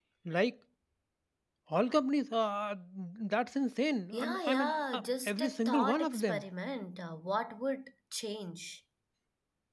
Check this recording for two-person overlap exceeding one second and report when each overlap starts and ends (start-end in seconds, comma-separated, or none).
4.1-6.4